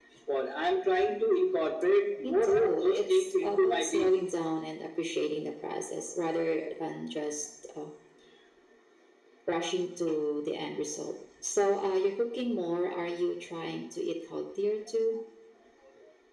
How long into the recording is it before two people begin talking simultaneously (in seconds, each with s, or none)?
2.2 s